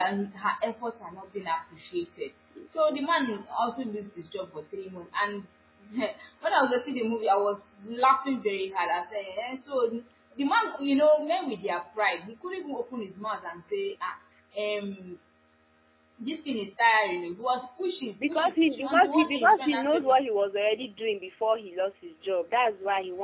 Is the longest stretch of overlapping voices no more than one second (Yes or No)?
No